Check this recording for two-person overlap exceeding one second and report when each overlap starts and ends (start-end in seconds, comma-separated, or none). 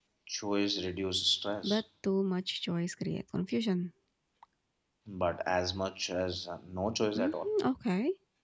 none